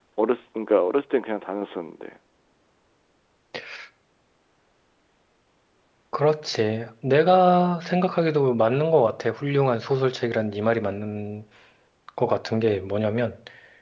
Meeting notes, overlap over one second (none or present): none